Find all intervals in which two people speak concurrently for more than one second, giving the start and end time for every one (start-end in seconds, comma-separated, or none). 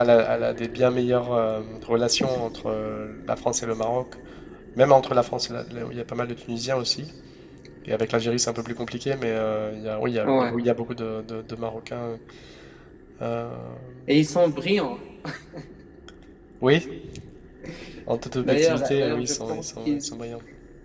18.4-20.0